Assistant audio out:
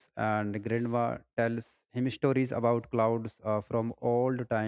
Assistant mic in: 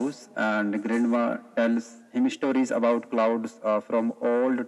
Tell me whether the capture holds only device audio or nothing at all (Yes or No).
Yes